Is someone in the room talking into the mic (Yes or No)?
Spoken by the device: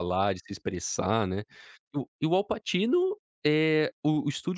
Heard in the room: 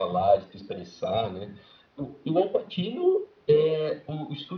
No